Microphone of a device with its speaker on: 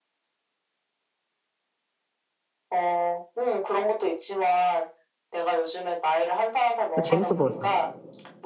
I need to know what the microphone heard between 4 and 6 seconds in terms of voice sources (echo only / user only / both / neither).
echo only